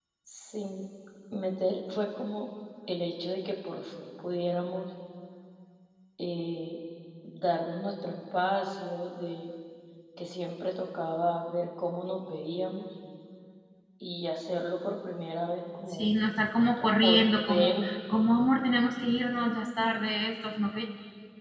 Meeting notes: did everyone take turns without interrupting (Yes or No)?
No